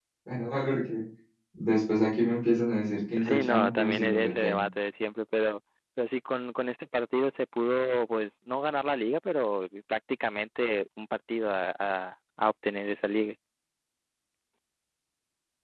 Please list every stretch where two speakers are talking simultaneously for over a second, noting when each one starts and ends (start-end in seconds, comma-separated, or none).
3.3-4.6